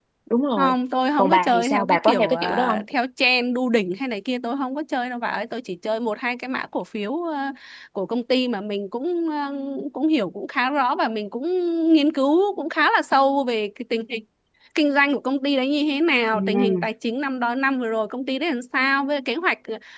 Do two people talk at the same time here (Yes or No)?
Yes